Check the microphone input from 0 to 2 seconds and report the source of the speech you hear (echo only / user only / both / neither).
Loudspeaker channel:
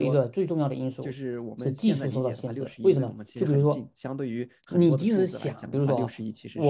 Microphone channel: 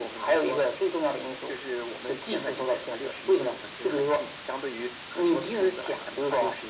echo only